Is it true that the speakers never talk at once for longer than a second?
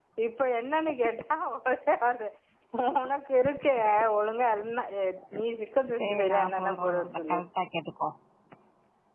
No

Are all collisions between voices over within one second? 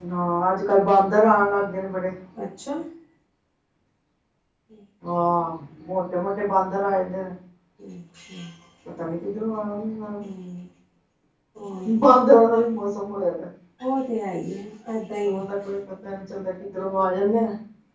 Yes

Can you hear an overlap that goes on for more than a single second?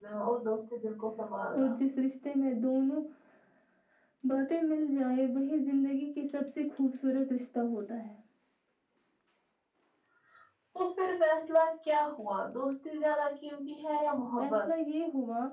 No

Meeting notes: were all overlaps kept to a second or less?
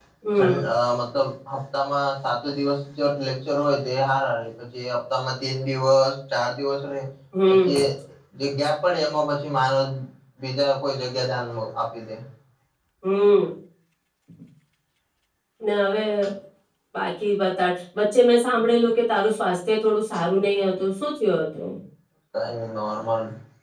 Yes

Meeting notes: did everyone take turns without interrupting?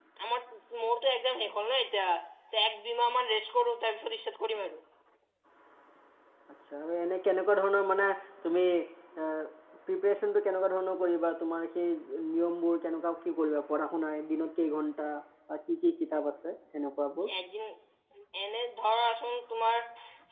Yes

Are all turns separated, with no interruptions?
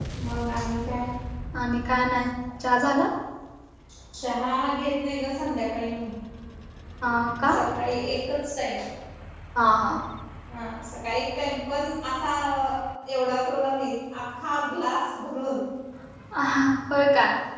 Yes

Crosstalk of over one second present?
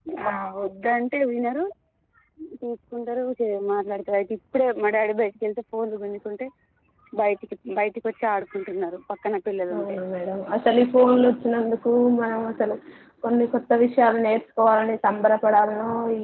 No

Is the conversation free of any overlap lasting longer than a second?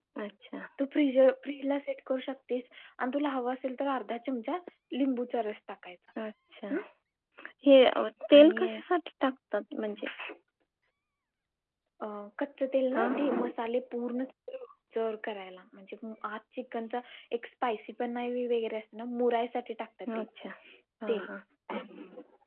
Yes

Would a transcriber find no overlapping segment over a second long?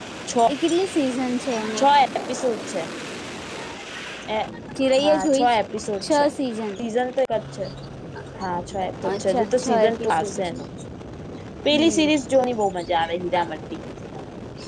No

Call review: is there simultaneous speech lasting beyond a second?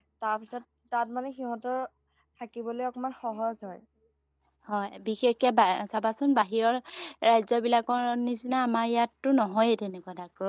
No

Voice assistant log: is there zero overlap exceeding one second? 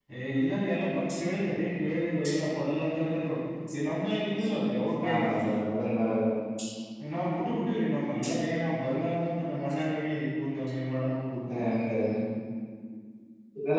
Yes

